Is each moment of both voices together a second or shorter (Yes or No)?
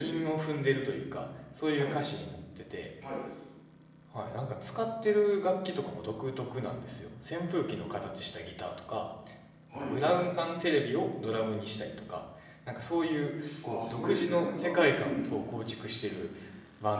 No